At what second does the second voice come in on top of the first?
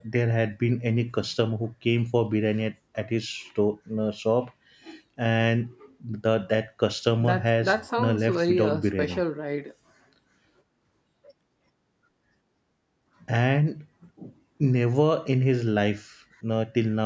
7 s

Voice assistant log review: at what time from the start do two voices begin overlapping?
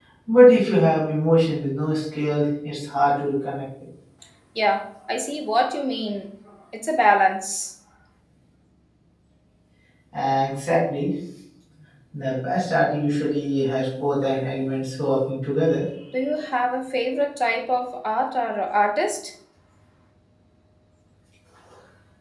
none

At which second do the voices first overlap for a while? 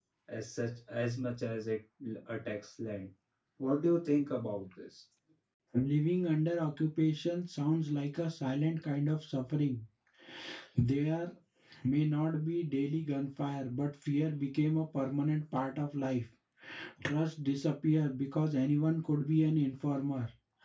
none

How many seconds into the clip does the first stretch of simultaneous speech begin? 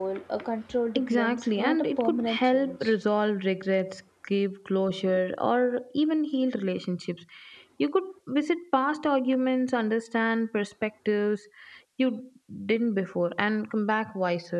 1 s

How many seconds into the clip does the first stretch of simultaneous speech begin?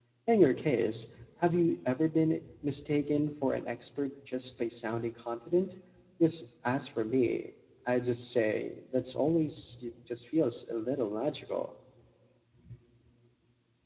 none

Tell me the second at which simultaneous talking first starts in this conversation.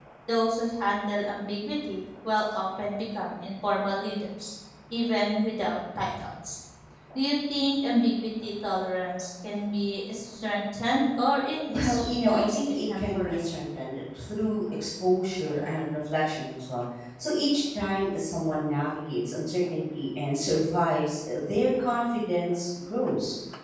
12 s

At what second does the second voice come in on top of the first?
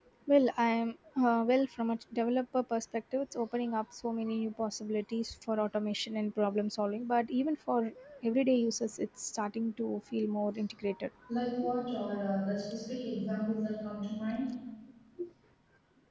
none

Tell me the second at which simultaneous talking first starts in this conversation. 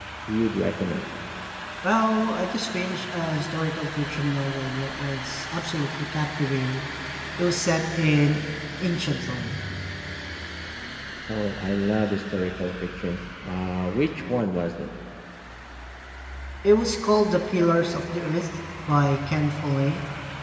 none

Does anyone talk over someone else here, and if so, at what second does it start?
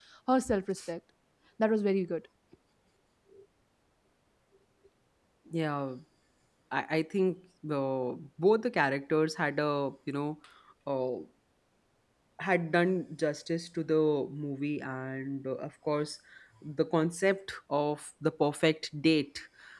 none

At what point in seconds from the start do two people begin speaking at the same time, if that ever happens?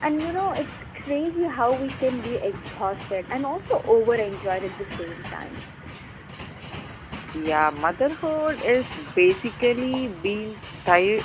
none

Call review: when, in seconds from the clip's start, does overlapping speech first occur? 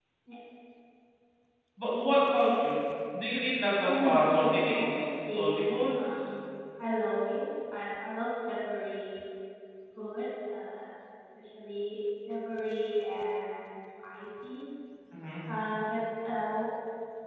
4 s

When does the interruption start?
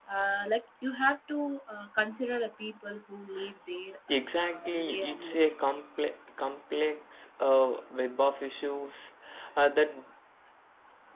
4 s

